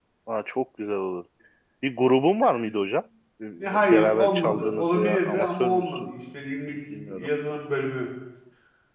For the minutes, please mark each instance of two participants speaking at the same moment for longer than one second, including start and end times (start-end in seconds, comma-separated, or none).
3.6-6.1